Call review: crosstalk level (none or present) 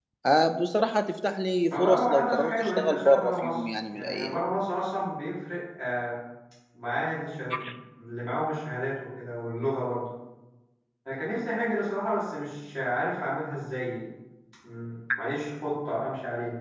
present